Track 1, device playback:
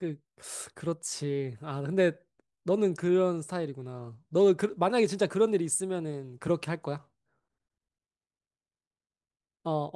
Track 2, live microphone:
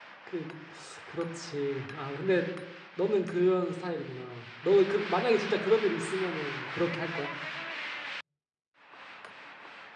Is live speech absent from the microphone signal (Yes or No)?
Yes